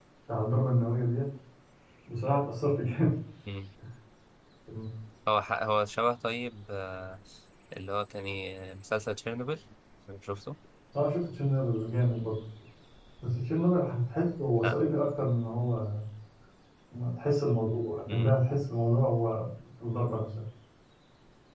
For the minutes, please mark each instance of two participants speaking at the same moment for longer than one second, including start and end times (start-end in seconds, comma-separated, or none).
none